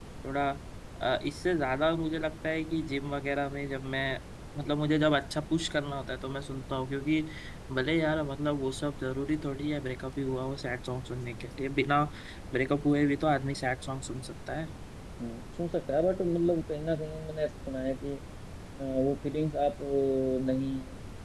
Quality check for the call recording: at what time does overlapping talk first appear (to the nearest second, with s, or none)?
none